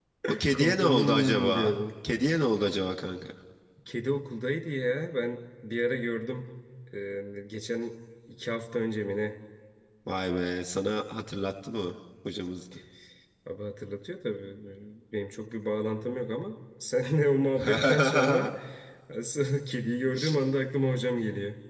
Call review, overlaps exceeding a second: present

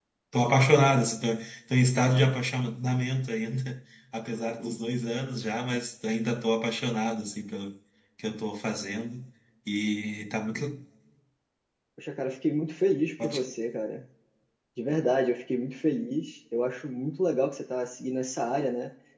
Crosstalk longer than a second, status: none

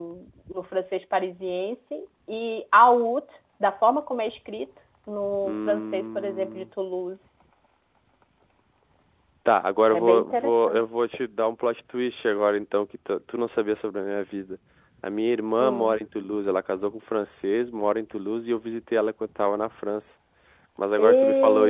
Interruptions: present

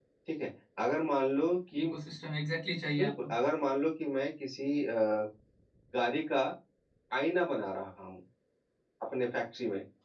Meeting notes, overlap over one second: none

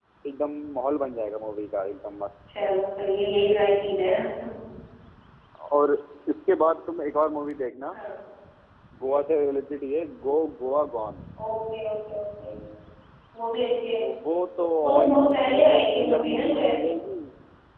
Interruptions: present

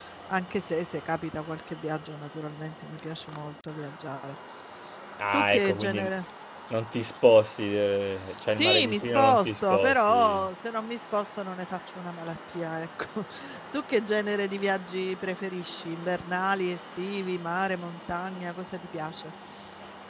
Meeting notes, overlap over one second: present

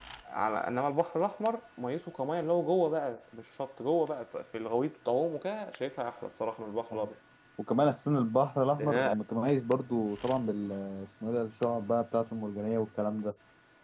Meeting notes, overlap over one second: none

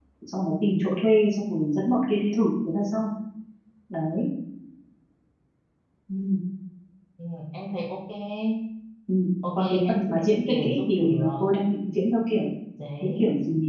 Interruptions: present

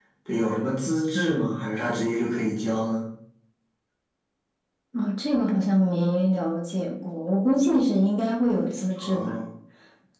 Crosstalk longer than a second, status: none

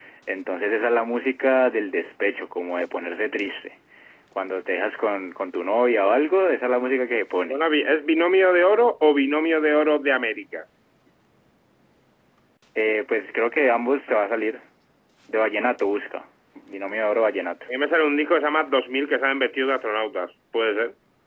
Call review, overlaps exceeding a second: none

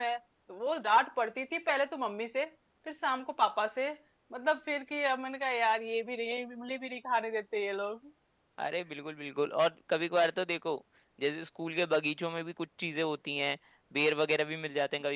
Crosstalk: none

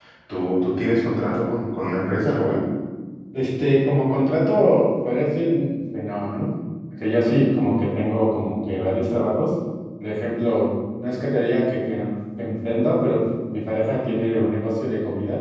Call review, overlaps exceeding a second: none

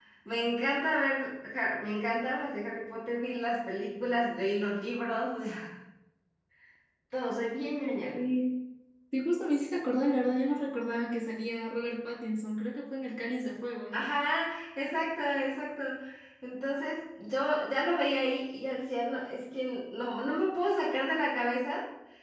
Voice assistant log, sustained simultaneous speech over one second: none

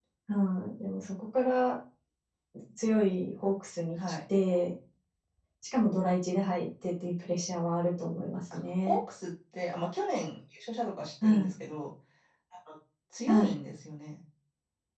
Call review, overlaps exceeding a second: none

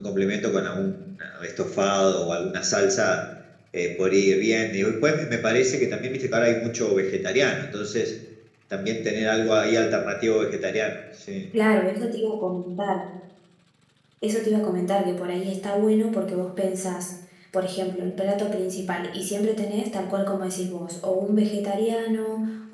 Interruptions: none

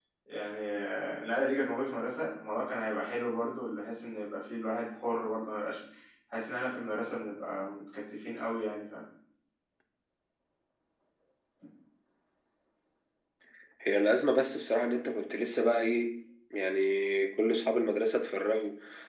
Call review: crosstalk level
none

